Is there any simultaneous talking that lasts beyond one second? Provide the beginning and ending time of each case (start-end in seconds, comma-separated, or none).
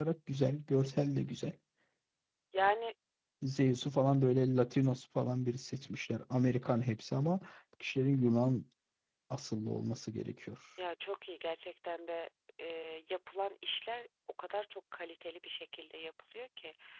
none